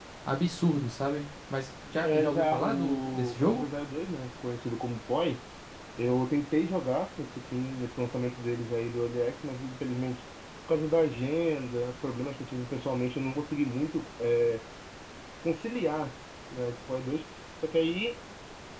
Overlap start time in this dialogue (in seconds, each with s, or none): 2.0 s